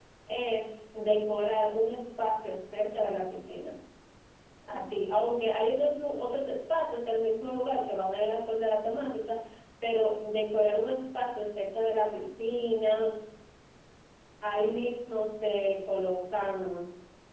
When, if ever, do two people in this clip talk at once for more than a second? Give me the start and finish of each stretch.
none

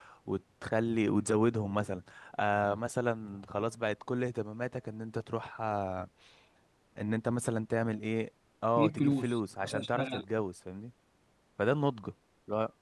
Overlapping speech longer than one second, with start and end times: 8.8-10.2

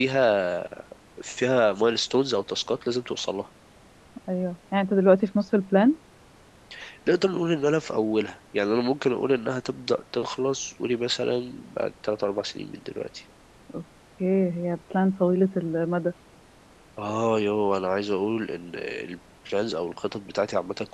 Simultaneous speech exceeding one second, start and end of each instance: none

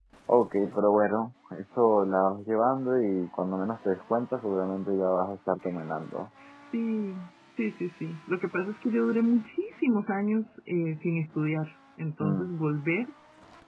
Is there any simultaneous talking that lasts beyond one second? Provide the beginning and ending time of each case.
none

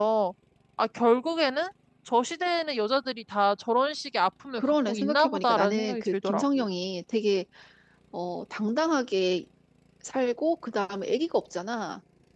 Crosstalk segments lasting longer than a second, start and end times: 4.6-6.7

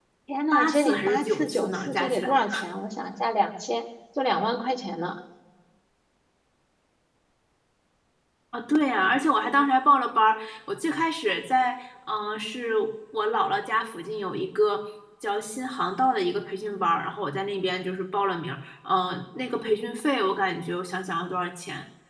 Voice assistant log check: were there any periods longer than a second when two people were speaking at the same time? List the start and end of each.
0.5-2.4

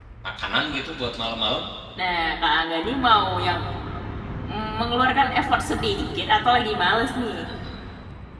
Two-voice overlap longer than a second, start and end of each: none

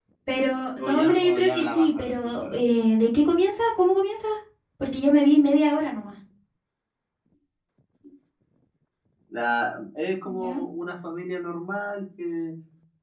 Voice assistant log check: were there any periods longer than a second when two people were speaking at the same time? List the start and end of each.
0.8-2.6

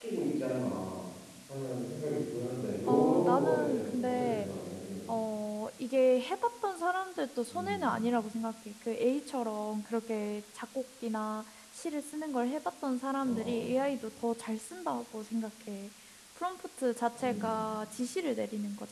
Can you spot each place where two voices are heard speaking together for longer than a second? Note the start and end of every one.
2.9-4.5

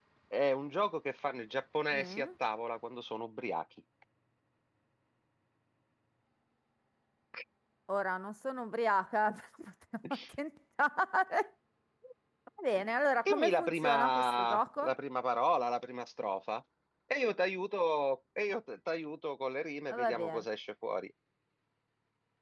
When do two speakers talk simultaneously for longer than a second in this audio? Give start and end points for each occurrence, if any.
13.2-14.9

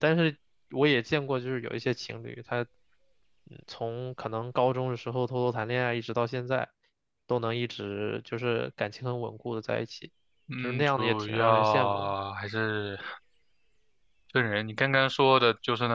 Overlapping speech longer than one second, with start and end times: 10.6-12.1

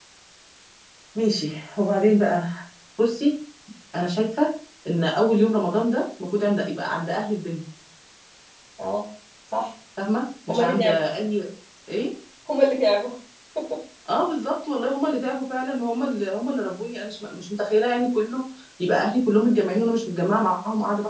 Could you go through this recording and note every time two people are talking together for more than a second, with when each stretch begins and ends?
none

